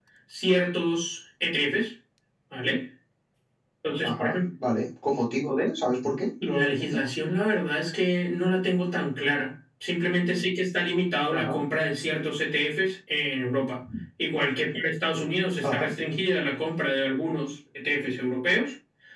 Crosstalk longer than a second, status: none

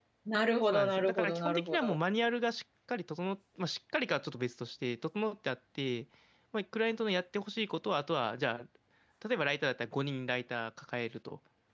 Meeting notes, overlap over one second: present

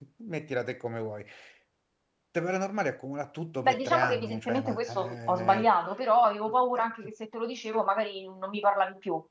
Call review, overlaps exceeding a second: present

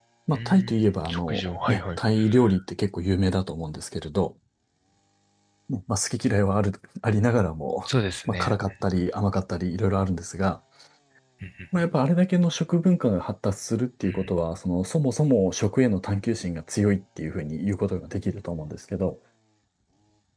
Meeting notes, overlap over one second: present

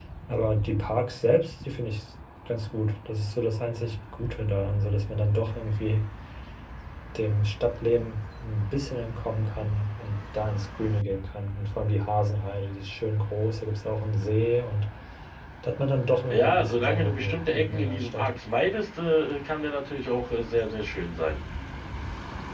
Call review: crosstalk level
present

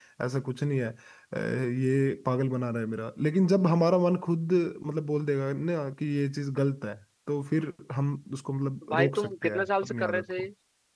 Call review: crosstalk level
present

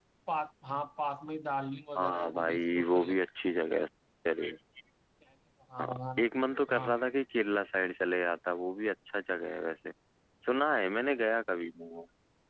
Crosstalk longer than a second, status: present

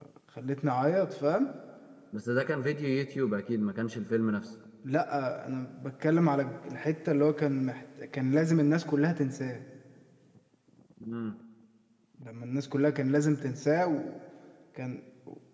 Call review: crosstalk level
none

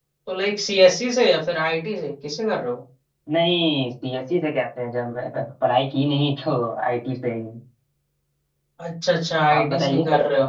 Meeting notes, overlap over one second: none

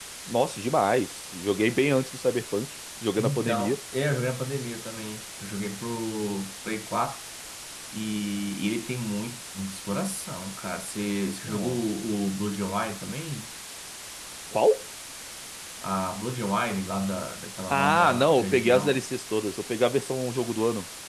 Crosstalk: present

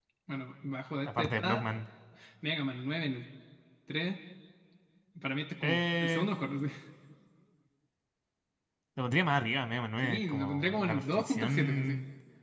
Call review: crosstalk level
present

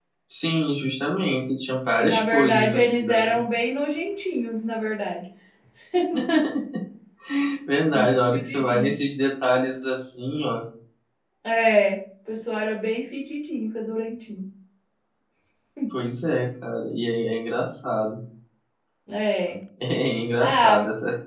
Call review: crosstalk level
present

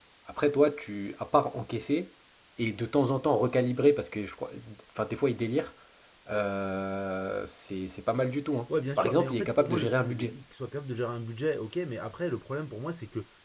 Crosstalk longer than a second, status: present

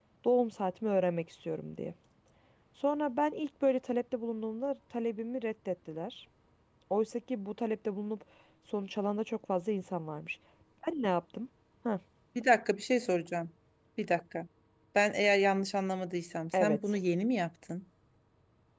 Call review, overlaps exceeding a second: none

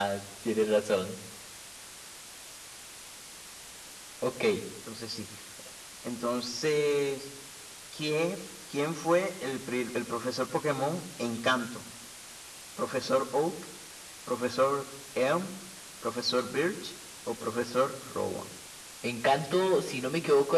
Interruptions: none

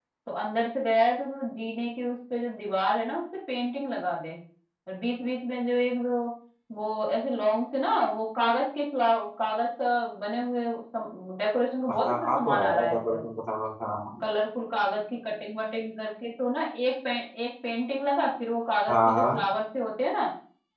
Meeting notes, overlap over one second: present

